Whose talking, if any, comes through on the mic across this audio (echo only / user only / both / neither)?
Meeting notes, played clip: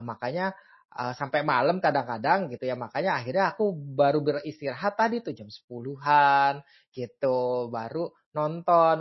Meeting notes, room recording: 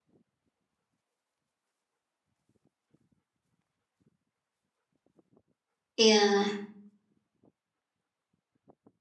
user only